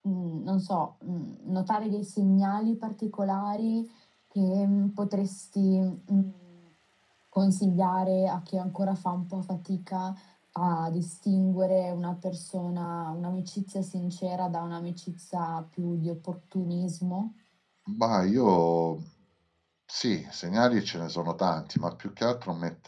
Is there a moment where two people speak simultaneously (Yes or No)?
No